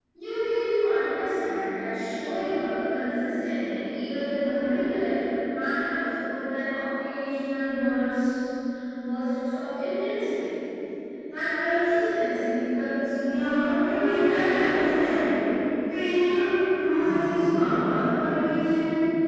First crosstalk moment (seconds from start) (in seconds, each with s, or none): 13.2 s